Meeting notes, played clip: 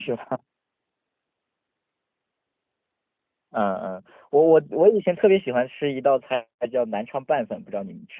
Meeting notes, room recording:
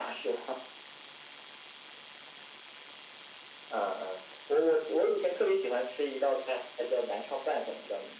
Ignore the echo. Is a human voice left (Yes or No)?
No